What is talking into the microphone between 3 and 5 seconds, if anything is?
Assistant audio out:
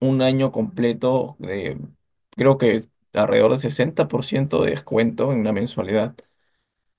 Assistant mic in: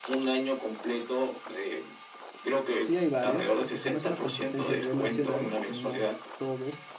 both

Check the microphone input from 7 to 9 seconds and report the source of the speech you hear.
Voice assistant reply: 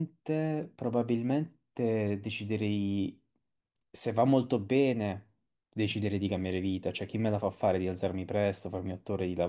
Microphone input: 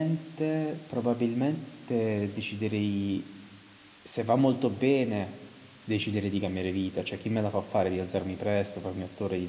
echo only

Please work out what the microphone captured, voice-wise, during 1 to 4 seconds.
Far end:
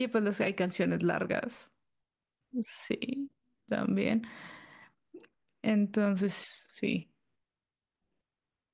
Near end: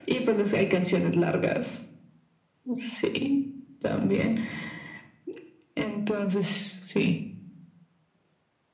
echo only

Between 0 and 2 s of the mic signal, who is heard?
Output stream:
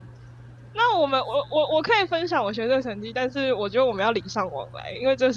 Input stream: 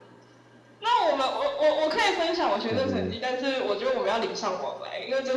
echo only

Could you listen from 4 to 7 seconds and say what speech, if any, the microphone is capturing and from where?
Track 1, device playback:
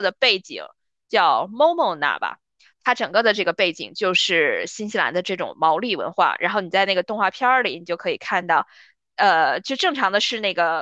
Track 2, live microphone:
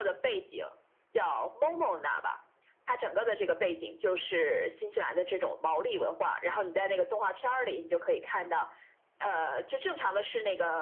echo only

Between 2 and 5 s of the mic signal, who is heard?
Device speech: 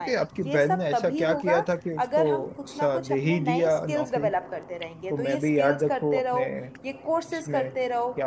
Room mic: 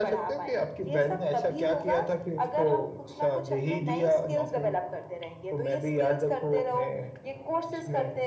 echo only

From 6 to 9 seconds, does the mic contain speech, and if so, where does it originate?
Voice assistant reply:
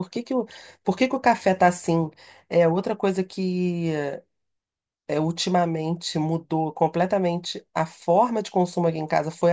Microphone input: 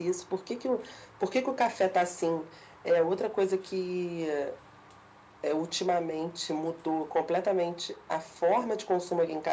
echo only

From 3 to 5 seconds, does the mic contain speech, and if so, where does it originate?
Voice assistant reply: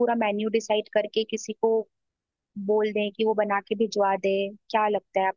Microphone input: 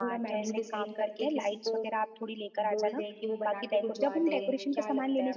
both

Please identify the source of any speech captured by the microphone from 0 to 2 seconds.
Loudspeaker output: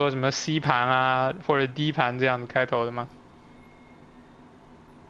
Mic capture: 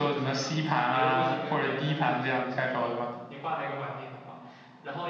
both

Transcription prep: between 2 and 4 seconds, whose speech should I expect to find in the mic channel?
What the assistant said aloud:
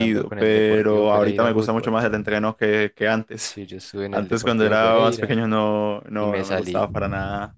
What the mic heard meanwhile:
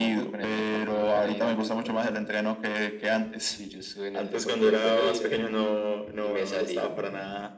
echo only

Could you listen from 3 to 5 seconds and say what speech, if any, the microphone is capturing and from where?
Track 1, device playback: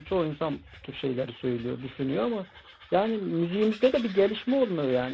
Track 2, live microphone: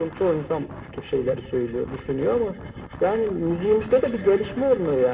echo only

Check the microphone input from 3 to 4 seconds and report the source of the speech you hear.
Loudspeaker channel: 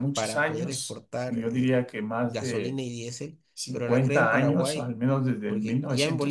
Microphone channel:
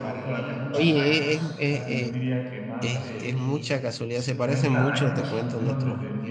both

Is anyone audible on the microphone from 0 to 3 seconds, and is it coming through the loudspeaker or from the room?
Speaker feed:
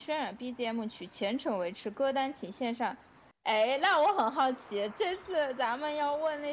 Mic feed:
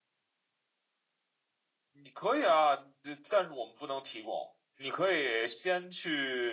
user only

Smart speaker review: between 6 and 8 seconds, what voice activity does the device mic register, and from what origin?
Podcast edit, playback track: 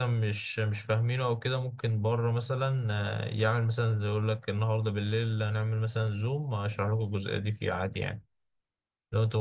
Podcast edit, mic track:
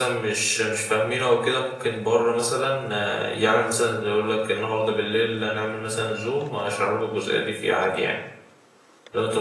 echo only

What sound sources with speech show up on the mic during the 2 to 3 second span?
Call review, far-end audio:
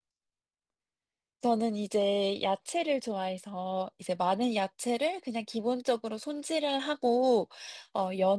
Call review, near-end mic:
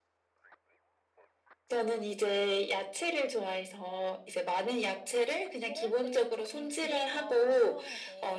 echo only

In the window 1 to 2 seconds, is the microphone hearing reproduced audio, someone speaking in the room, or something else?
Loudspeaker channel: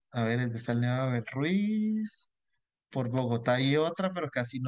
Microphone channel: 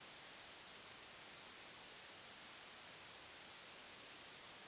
neither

